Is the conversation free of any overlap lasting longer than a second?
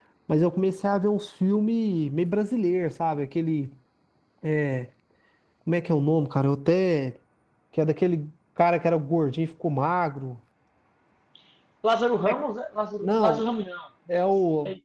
Yes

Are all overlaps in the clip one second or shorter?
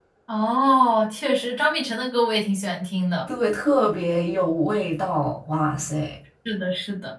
Yes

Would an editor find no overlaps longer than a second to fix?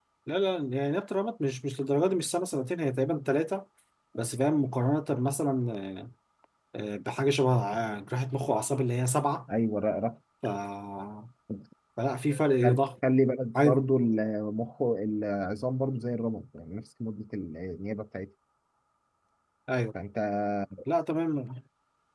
Yes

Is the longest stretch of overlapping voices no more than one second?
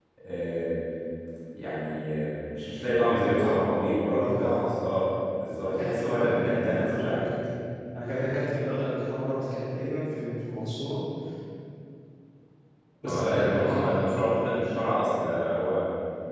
No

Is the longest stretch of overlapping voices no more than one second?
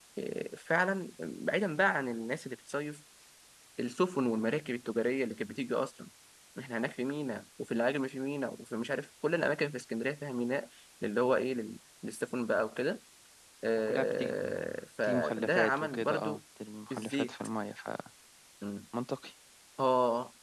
No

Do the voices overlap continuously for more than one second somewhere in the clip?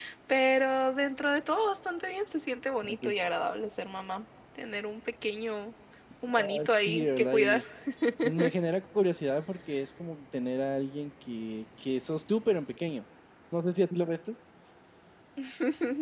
Yes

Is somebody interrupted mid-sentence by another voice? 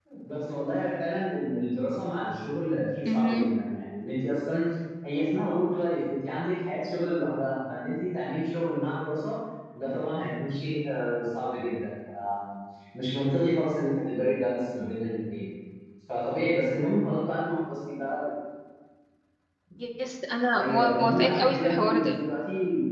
Yes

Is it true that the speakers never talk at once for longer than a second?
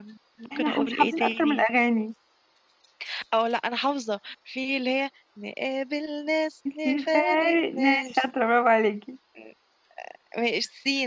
No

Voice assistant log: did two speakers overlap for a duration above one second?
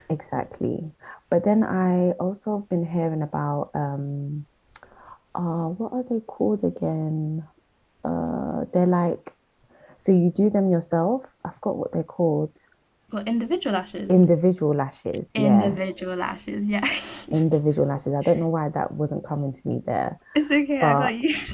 No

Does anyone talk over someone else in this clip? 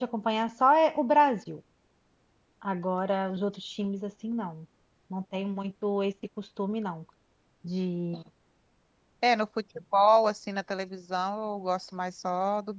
No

